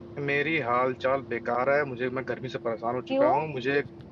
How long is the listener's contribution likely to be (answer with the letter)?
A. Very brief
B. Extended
A